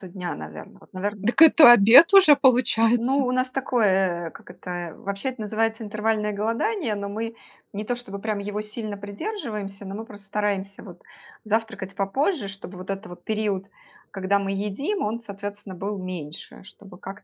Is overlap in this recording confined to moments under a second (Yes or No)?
Yes